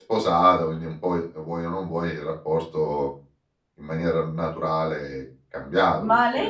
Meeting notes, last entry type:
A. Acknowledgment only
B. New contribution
B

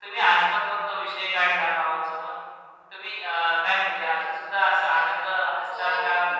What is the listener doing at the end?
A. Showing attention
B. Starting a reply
B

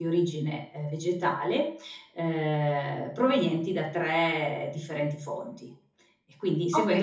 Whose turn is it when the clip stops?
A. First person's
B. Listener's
B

